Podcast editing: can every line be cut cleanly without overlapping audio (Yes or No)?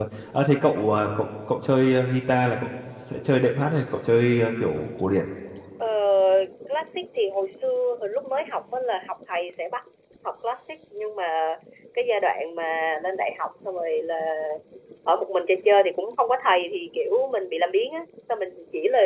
Yes